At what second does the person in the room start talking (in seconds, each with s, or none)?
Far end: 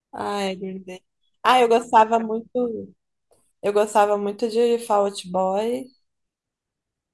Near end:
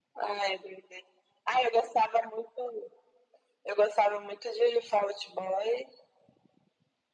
none